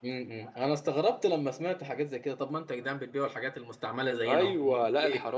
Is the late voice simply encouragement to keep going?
No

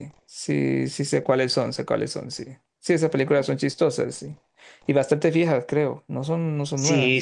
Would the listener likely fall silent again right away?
No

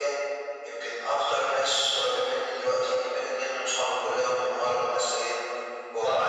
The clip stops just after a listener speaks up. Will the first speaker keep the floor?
No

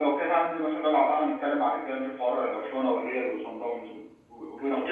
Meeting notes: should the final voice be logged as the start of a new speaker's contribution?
Yes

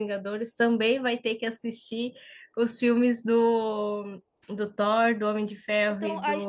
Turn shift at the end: Yes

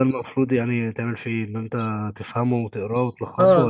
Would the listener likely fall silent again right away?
No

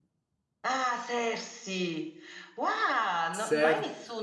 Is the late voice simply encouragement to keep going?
Yes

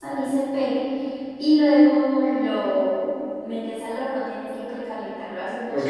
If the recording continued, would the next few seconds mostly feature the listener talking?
Yes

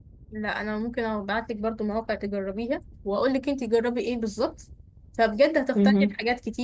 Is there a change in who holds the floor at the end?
No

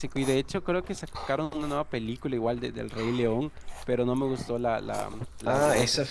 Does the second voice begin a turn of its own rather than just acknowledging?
Yes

